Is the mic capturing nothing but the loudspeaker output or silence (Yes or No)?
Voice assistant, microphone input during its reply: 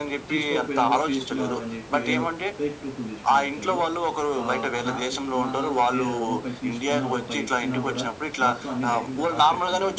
No